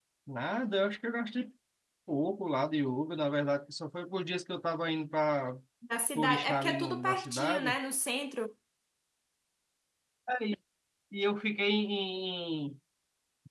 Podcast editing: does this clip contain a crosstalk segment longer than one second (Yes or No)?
Yes